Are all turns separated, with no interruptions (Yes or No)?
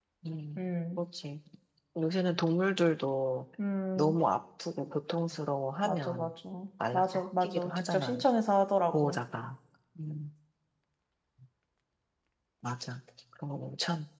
No